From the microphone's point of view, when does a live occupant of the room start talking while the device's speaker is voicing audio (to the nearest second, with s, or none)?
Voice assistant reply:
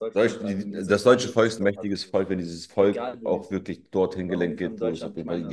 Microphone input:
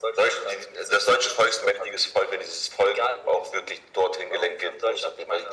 none